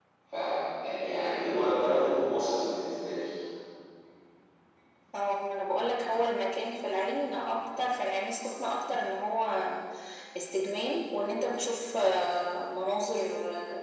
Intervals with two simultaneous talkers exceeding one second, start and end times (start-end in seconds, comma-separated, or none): none